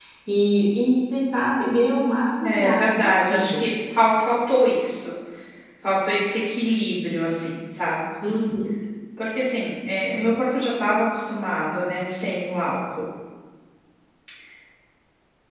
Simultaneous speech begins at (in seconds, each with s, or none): 2.4 s